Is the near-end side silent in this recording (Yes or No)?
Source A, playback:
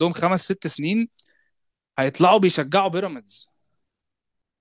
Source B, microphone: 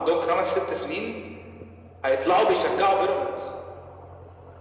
Yes